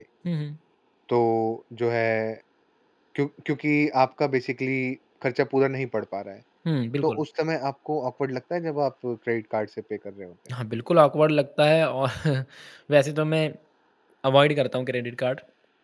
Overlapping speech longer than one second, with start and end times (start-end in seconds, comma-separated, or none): none